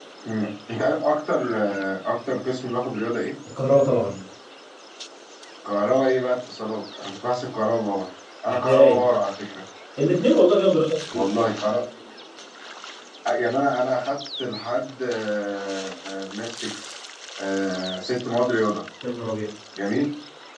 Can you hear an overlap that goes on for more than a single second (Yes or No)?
No